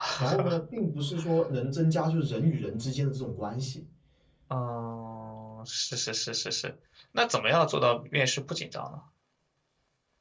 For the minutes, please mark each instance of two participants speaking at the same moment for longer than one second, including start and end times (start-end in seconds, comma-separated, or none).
none